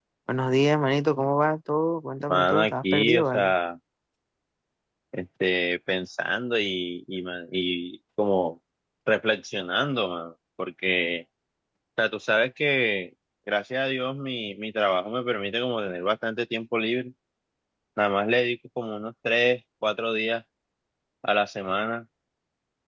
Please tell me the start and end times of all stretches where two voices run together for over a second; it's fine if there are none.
2.3-3.5

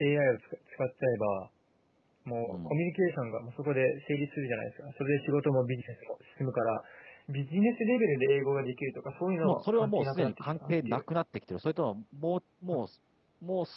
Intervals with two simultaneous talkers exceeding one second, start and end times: 9.4-11.0

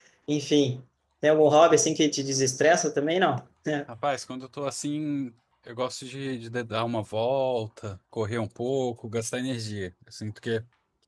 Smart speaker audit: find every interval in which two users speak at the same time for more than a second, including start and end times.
none

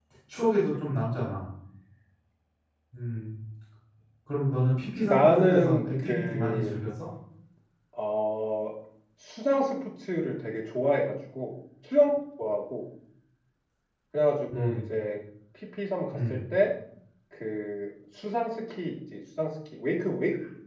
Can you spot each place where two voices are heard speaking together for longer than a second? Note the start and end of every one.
5.0-6.7

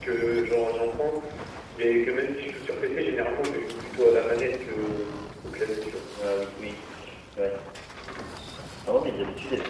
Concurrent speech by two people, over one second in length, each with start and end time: none

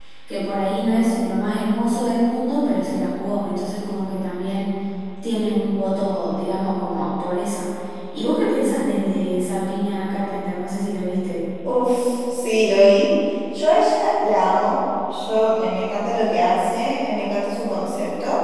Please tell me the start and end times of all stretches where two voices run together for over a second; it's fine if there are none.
none

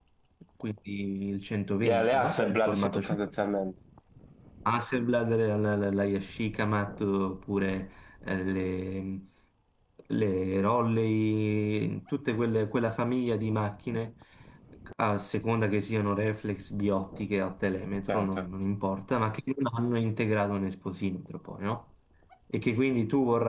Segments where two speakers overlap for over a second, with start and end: 1.8-3.2

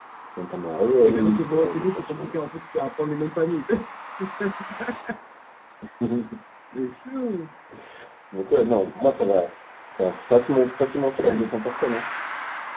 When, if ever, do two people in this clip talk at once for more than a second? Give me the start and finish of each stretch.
1.0-2.3

